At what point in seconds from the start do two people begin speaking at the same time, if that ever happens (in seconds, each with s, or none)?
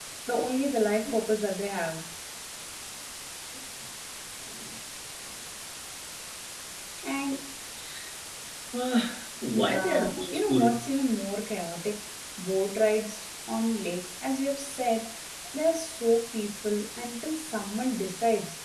9.5 s